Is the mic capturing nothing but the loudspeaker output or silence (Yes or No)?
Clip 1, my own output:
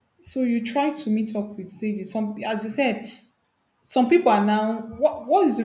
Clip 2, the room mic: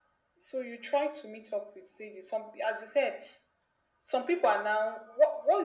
Yes